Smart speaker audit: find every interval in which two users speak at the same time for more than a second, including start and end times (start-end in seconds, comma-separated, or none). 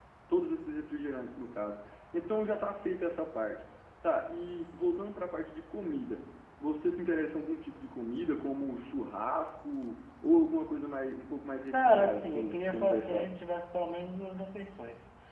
11.7-13.3